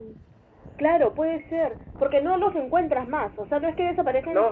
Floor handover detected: Yes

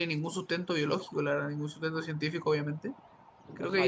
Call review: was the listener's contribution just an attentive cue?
No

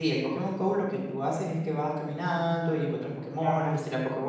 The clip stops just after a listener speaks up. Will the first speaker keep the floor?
Yes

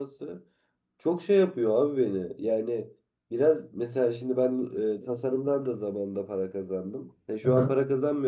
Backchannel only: Yes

